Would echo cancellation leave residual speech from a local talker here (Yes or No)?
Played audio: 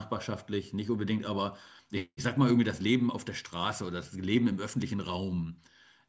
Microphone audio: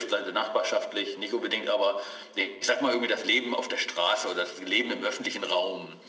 No